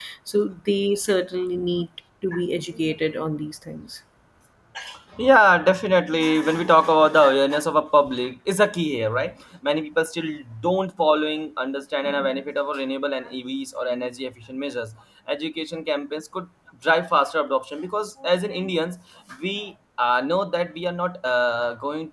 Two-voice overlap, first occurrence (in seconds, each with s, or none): none